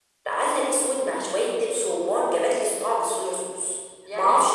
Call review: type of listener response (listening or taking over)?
taking over